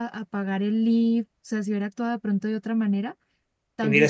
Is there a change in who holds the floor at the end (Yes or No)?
Yes